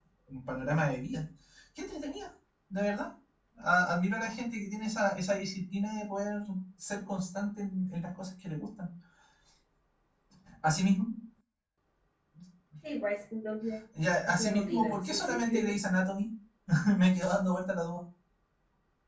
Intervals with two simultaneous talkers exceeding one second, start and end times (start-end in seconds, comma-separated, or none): 14.3-15.8